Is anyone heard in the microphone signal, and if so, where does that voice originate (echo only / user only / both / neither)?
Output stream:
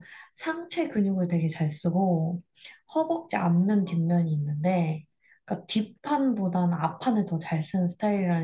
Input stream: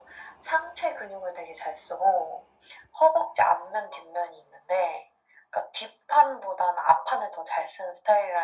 echo only